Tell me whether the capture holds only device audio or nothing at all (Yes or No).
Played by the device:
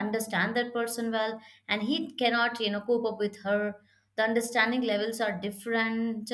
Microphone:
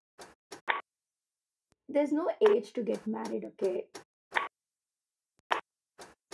No